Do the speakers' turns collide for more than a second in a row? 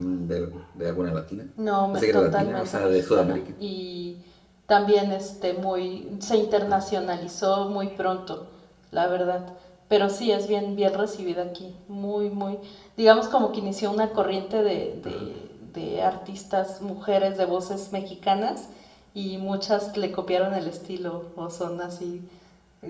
Yes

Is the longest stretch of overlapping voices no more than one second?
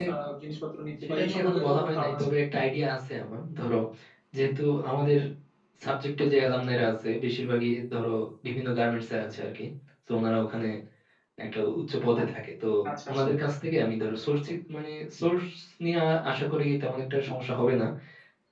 No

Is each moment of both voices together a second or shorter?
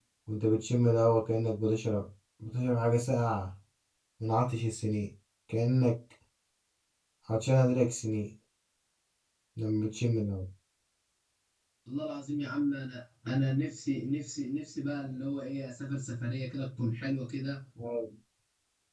Yes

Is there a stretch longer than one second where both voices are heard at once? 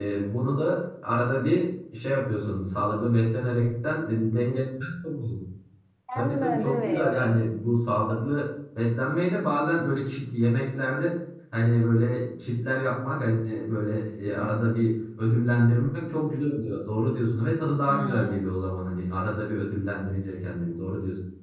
Yes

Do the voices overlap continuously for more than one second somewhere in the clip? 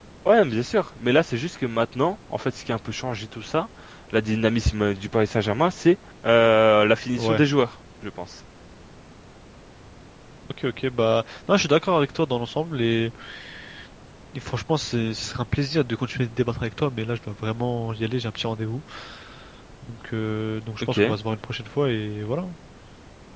No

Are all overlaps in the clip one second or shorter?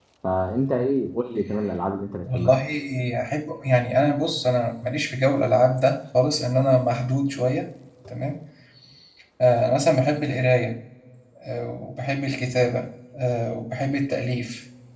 Yes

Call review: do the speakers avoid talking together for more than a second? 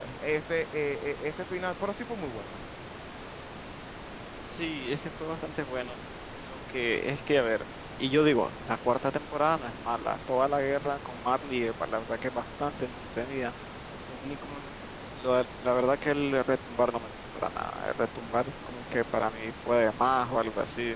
Yes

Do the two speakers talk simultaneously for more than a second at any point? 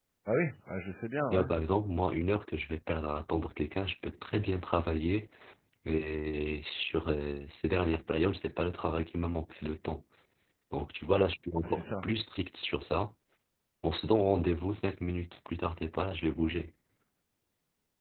No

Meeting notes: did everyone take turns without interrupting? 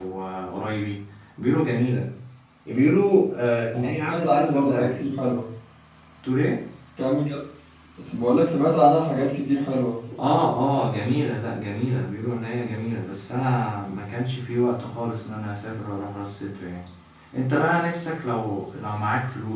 No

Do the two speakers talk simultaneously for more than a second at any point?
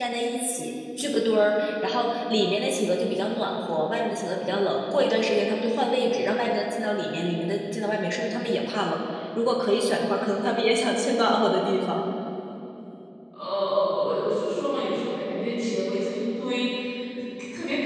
No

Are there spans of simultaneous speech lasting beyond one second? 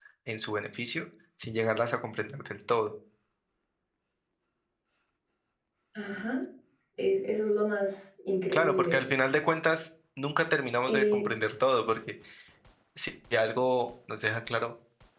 No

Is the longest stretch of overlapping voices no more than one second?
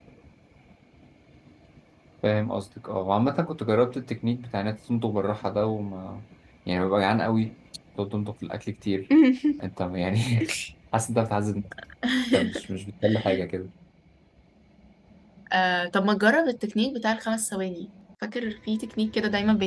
Yes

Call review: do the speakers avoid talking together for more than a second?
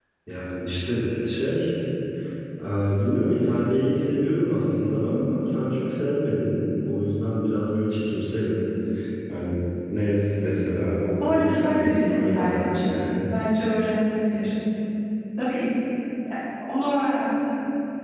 No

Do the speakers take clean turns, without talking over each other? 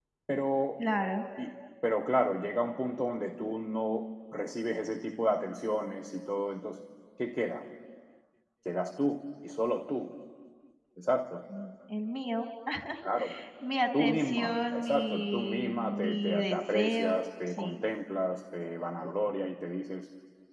No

